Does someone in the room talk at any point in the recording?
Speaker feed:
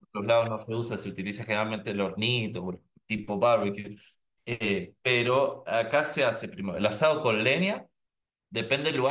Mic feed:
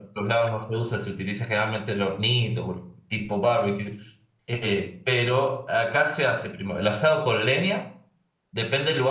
No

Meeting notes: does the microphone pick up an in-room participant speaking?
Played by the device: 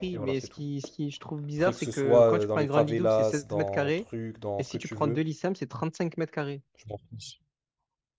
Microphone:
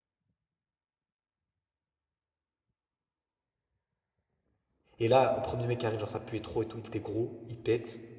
Yes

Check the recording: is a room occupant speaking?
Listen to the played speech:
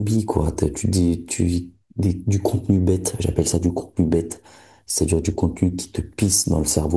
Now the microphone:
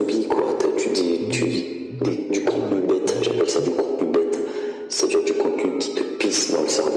Yes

